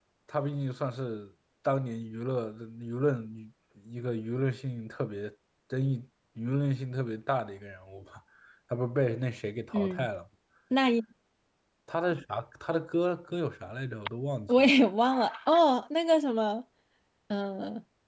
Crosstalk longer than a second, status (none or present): none